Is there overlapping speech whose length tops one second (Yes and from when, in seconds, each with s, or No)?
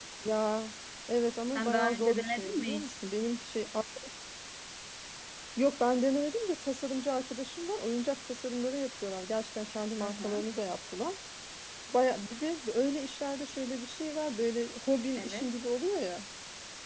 Yes, from 1.6 s